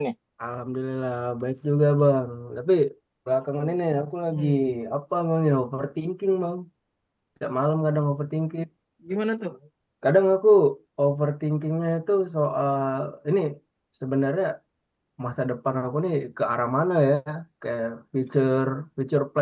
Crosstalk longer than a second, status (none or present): none